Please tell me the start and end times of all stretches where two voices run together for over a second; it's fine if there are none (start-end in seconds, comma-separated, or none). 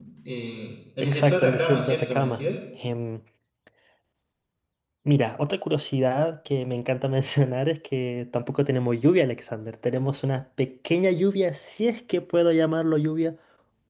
1.0-2.4